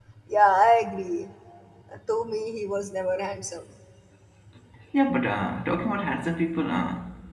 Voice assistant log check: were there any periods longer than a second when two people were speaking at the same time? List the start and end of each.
none

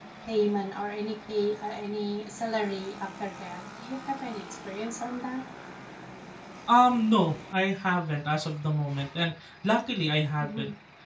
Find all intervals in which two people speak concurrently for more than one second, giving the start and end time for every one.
none

